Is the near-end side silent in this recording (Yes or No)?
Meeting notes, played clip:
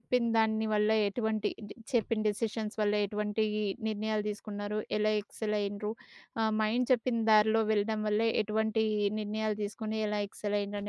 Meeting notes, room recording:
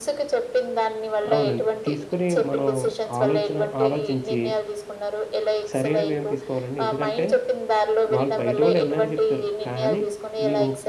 No